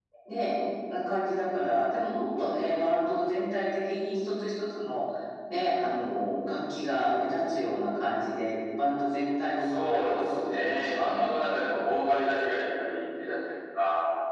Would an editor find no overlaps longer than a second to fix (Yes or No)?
No